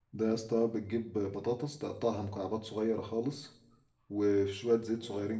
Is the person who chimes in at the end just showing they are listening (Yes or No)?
Yes